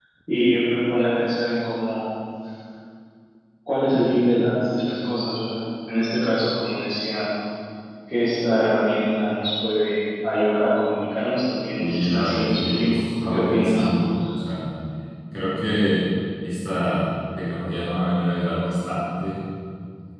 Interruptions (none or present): present